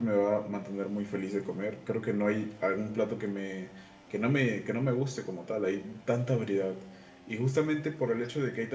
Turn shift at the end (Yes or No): No